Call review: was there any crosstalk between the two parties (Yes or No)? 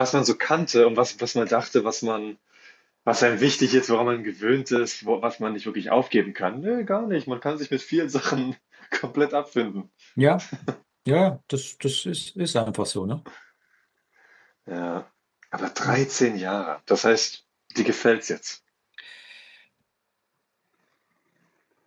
No